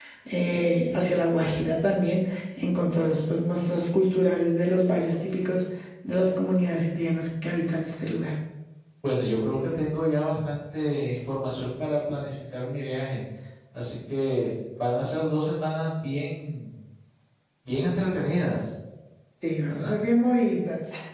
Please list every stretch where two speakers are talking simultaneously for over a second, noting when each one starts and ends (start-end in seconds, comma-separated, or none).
none